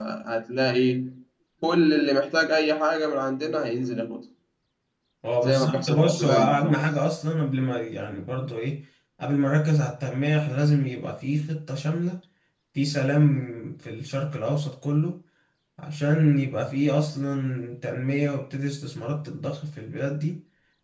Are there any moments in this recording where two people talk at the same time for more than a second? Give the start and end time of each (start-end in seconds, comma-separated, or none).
5.4-6.8